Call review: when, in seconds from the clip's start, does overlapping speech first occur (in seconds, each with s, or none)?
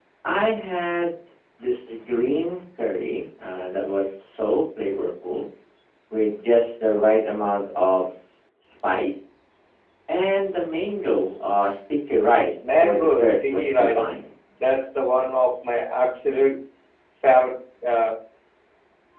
12.6 s